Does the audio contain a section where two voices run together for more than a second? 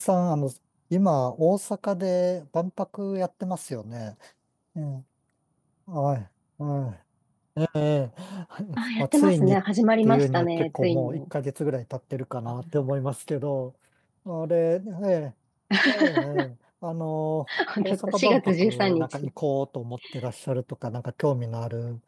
Yes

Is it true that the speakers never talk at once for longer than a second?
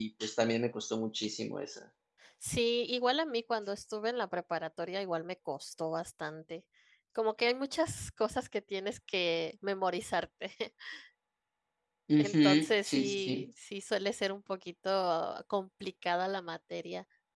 No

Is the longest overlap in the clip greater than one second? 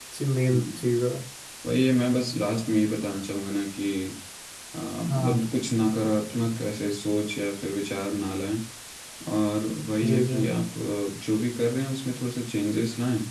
No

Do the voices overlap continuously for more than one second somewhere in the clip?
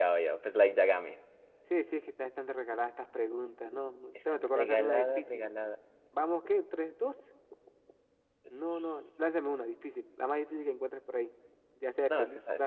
Yes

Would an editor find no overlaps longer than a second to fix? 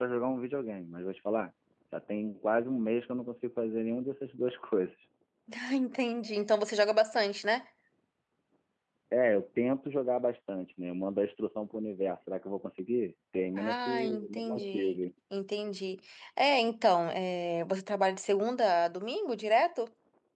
No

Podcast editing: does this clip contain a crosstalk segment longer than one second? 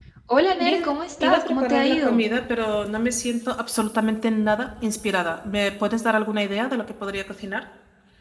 Yes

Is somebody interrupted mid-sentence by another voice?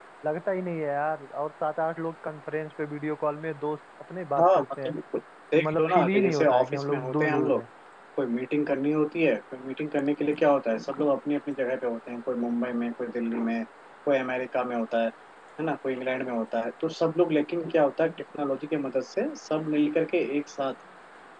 Yes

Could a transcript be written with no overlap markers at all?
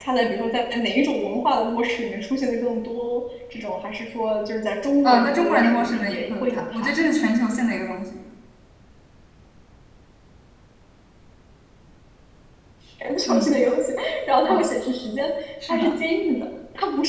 No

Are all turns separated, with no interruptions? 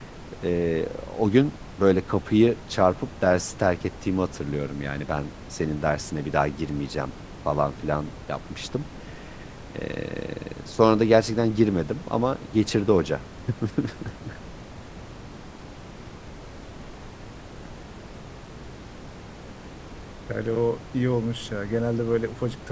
Yes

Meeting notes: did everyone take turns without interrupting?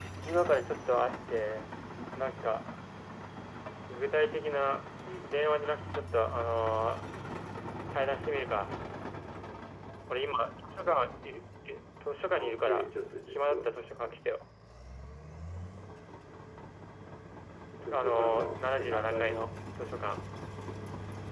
No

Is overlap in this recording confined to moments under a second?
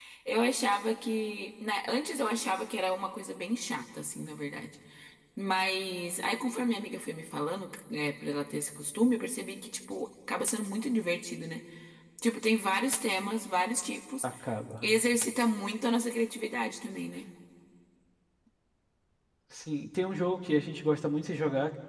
Yes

